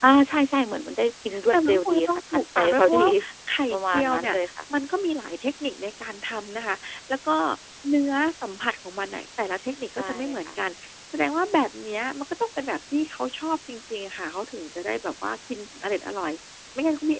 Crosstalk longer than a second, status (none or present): present